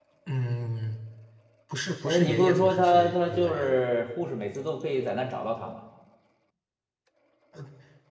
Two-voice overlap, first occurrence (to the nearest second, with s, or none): 2 s